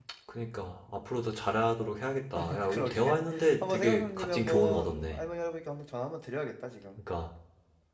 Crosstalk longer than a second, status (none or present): present